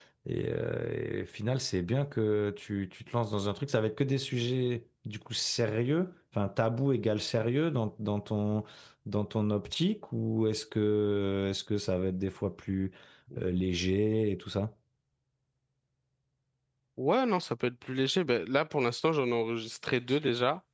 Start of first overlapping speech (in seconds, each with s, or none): none